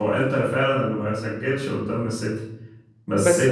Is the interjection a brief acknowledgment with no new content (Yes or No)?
Yes